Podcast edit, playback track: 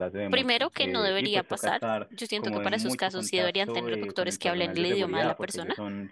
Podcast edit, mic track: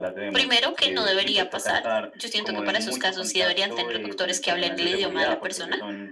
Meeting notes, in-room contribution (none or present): none